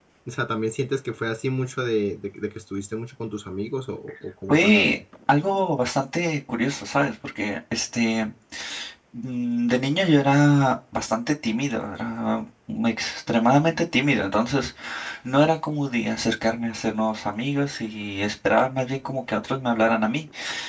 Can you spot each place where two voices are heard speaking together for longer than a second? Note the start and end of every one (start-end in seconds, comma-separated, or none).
none